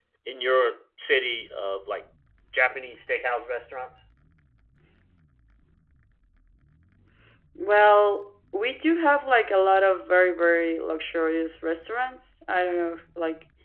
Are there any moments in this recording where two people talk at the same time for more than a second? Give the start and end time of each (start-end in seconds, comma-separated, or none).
none